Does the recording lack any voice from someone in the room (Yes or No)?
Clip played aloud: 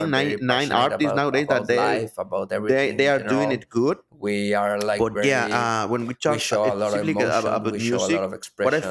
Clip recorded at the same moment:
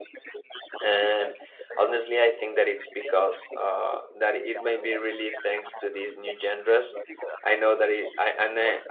No